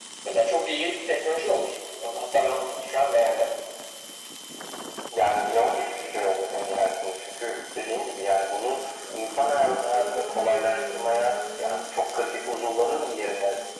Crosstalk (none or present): none